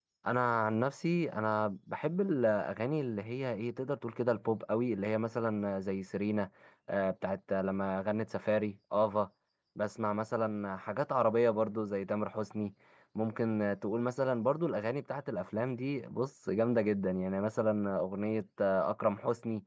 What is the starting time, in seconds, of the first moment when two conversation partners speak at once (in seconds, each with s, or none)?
none